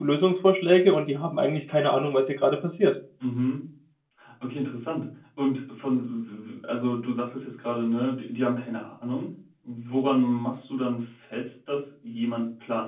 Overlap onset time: none

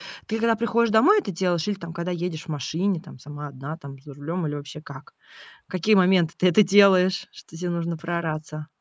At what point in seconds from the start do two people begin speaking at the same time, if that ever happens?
none

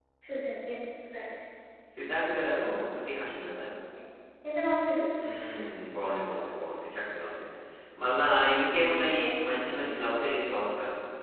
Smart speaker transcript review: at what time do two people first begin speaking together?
8.4 s

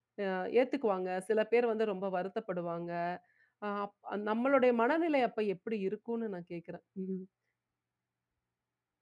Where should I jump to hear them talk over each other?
none

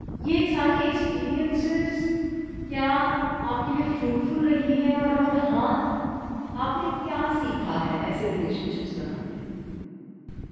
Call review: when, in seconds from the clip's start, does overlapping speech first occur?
none

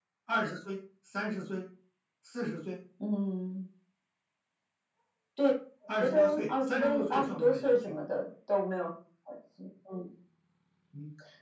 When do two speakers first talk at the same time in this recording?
6.0 s

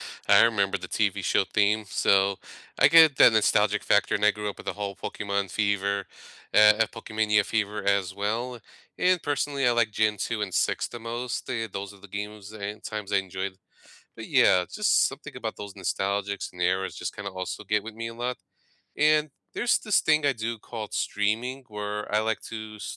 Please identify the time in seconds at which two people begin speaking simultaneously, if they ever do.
none

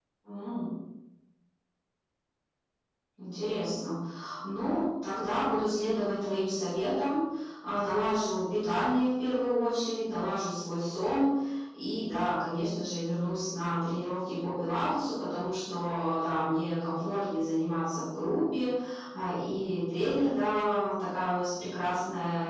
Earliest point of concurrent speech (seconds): none

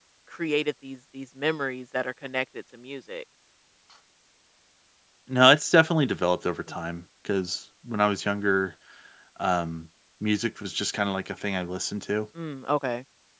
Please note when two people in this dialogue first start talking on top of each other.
none

